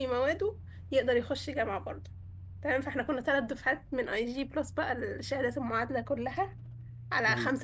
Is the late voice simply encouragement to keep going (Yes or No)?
Yes